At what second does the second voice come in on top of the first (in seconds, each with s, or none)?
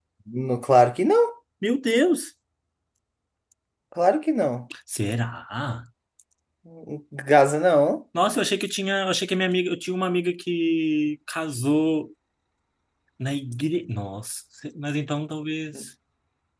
none